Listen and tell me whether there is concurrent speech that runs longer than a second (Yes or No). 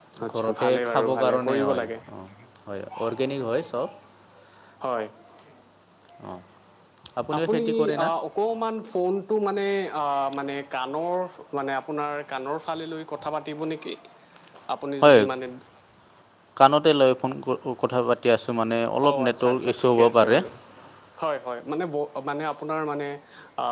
Yes